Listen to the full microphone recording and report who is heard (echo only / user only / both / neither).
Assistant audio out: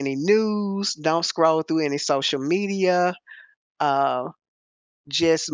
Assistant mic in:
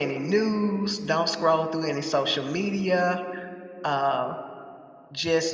echo only